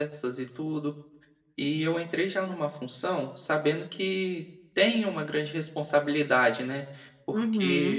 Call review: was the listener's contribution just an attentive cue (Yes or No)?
No